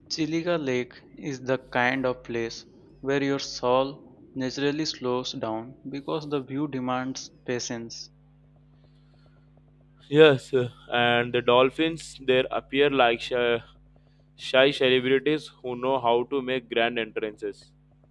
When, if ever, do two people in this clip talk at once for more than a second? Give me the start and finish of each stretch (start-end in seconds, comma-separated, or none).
none